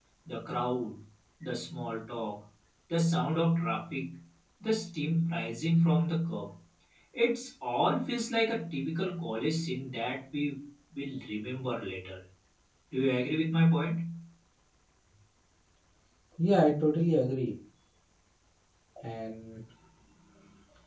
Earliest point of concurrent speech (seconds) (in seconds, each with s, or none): none